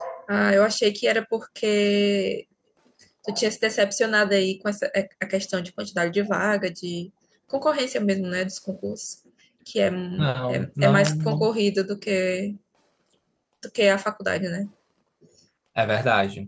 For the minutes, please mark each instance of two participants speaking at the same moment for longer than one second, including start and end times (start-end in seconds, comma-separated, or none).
10.2-11.5